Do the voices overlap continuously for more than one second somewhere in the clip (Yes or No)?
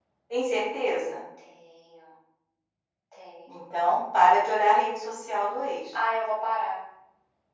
No